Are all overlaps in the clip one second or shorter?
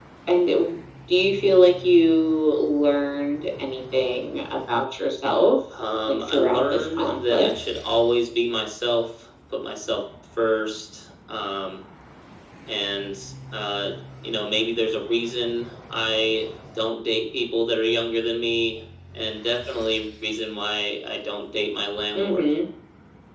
No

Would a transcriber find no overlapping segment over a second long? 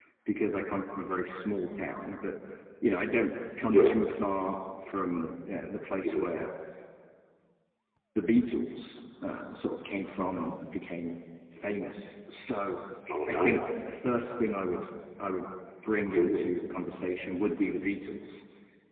Yes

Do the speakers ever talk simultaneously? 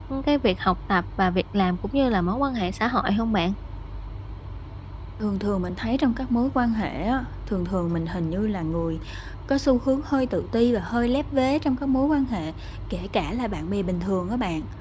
No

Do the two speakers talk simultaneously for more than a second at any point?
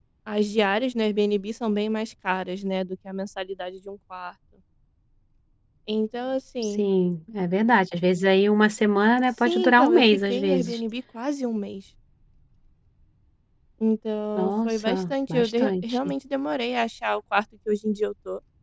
Yes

